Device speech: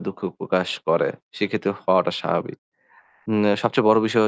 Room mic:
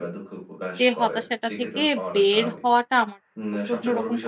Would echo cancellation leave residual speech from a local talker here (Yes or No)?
Yes